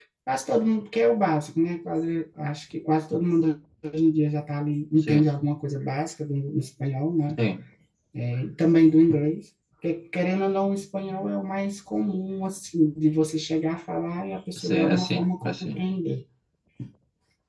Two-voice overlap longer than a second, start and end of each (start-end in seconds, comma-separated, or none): 14.6-15.8